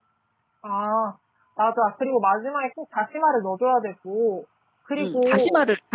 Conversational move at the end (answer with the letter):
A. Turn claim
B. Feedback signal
A